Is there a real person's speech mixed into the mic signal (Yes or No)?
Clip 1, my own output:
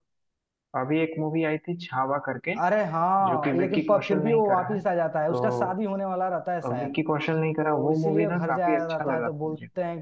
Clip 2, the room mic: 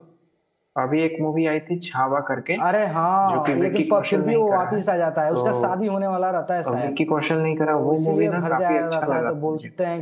No